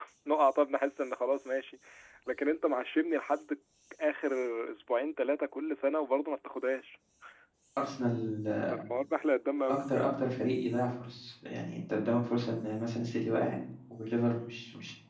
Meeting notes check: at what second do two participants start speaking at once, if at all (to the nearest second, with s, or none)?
none